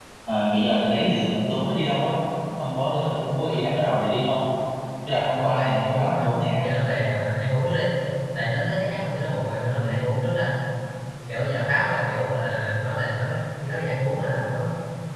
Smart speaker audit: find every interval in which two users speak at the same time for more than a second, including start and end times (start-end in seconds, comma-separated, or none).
5.4-6.6